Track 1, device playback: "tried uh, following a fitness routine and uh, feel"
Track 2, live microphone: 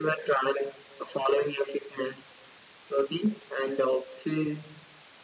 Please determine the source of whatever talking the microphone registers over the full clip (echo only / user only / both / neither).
echo only